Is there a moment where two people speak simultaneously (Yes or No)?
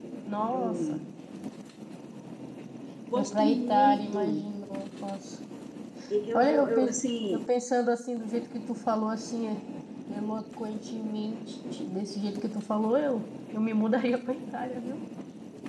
Yes